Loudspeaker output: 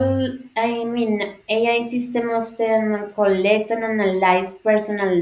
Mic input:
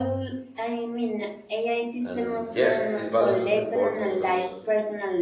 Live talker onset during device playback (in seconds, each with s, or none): 2.0 s